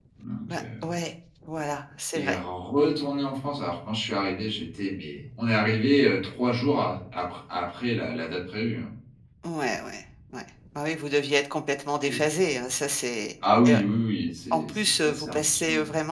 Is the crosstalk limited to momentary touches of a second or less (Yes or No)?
No